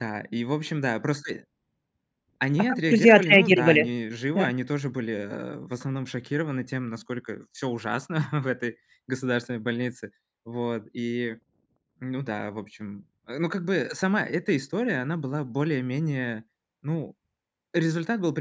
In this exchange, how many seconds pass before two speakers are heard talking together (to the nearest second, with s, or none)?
3 s